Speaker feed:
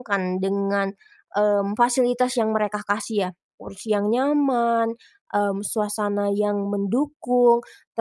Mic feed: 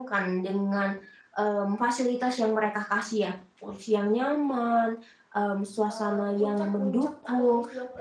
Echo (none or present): present